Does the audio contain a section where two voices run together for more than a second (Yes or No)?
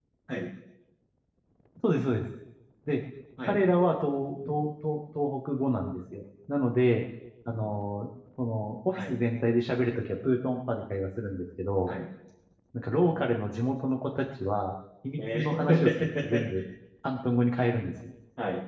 Yes